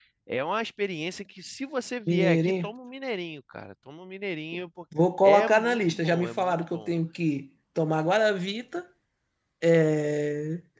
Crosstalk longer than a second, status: present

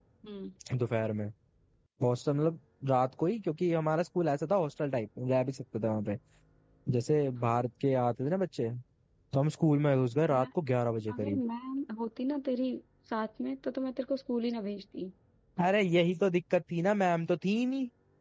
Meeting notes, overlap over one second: none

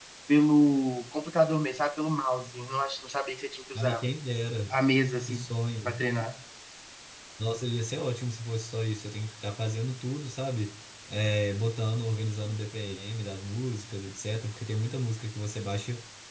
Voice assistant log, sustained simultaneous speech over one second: none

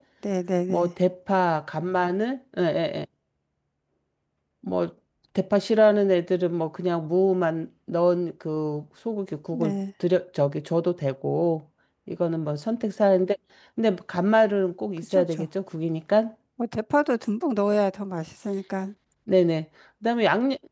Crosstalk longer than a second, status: none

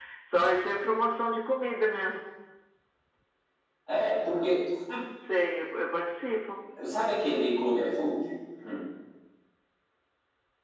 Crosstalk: none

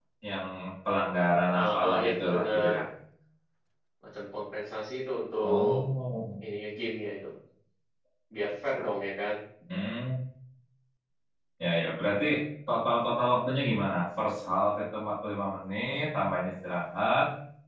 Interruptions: present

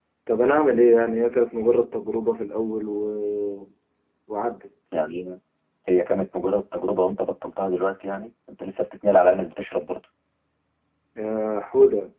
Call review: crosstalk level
none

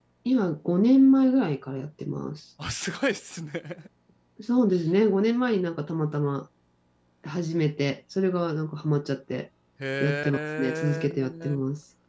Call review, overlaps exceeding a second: present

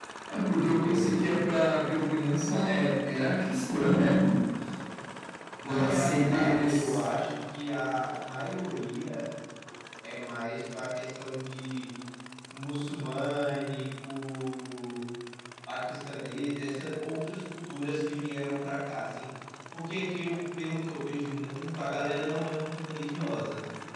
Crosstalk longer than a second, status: present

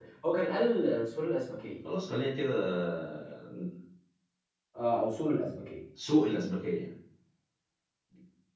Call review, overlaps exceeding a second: none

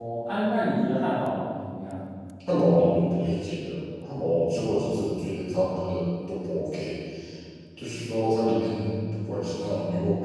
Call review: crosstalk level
none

